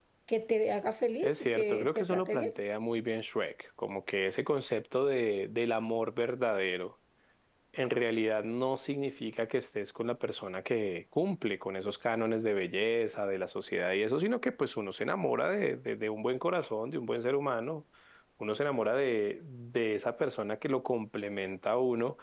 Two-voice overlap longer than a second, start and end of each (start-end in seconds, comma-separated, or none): 1.2-2.6